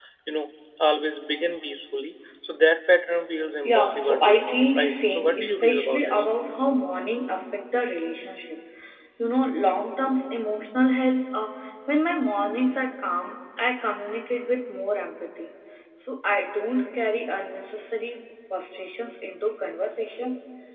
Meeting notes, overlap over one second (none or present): present